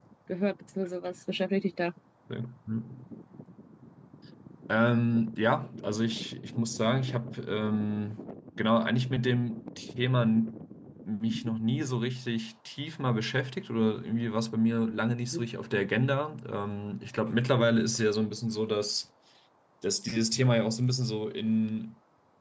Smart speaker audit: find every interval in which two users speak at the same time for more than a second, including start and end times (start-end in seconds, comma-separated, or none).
none